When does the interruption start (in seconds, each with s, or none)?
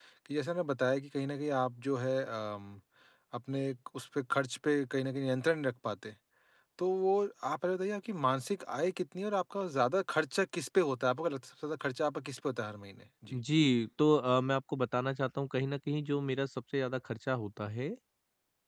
none